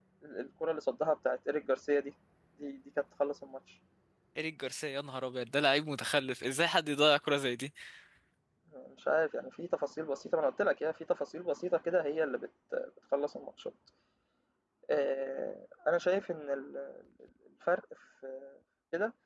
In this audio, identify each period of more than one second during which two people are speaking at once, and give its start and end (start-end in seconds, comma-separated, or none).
none